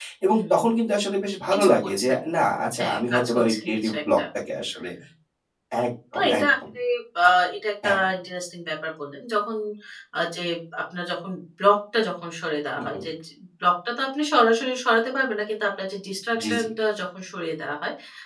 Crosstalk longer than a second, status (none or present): present